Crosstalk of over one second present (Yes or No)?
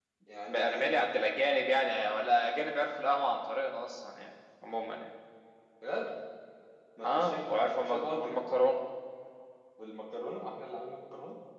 Yes